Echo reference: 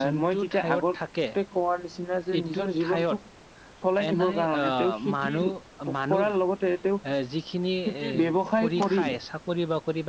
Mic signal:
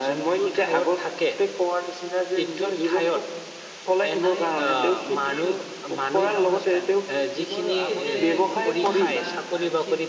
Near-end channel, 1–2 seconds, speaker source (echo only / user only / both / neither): echo only